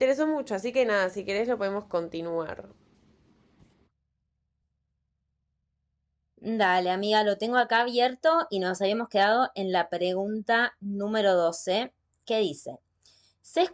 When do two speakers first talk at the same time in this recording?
none

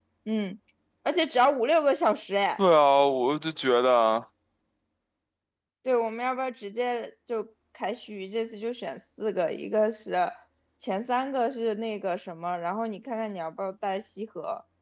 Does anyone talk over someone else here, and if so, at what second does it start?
none

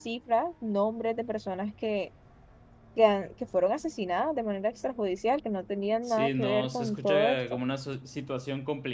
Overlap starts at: 6.1 s

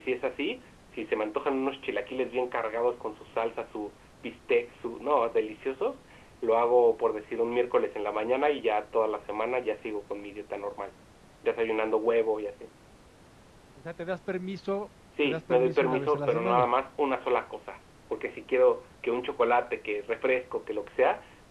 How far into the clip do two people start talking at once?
15.1 s

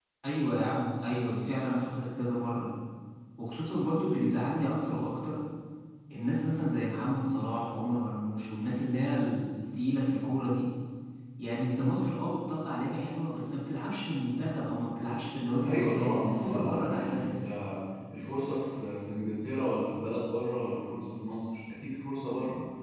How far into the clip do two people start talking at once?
15.6 s

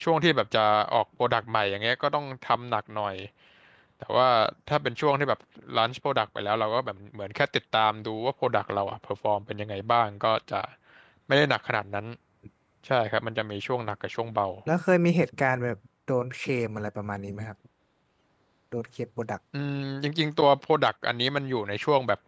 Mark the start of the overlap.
none

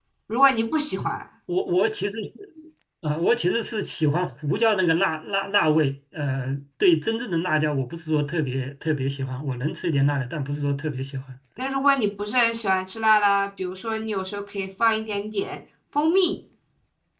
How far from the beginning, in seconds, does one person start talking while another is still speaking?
none

